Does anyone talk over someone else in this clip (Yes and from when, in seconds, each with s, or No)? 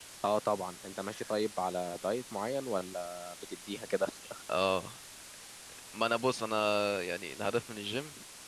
No